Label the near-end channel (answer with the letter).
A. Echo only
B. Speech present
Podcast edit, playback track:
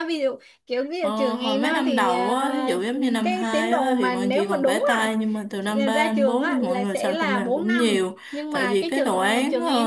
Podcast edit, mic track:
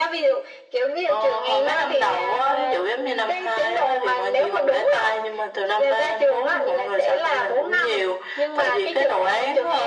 A